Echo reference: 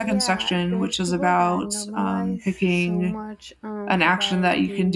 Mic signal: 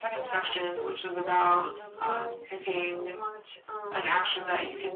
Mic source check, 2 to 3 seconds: echo only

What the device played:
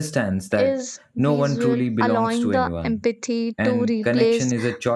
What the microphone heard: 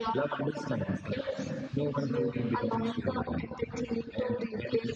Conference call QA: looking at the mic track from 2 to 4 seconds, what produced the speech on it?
echo only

